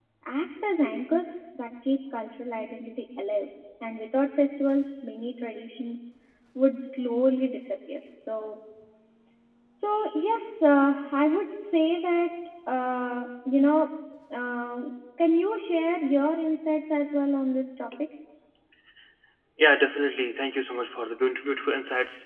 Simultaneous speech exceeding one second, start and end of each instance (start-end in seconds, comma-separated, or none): none